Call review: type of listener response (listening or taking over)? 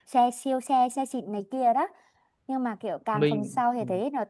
listening